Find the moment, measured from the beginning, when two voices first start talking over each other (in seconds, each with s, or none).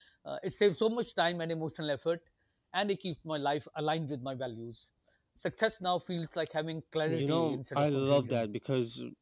7.1 s